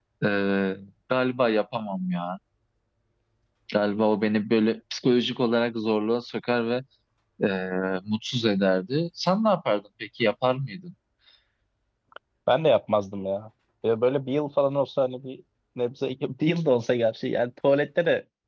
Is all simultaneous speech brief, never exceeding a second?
Yes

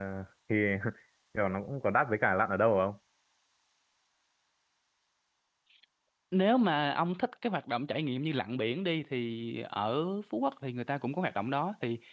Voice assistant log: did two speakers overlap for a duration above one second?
No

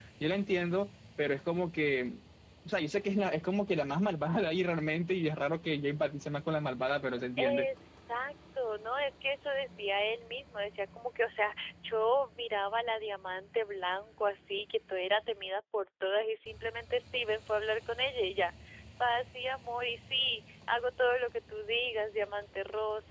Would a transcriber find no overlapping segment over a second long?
Yes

